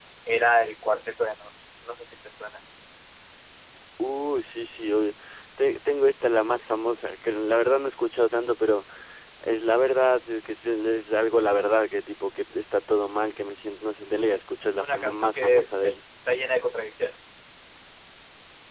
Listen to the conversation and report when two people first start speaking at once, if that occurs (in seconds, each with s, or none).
14.8 s